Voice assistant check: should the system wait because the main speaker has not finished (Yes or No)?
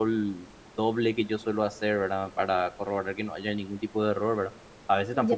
Yes